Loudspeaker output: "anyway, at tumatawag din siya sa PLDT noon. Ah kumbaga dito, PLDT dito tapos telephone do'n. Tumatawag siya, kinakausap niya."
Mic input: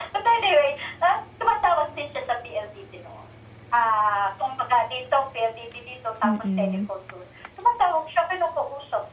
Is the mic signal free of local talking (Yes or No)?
No